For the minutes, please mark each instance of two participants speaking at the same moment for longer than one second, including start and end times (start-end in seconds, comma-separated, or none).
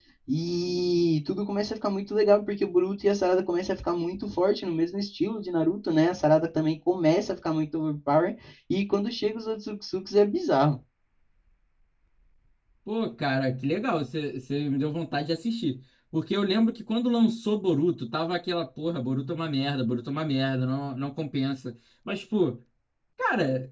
none